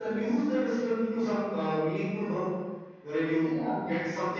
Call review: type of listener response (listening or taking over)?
listening